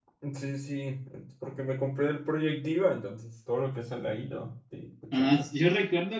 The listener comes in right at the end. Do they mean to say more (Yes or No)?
Yes